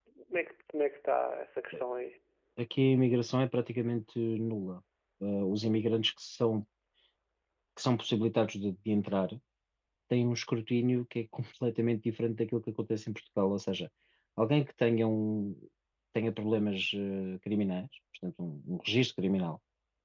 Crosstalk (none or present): none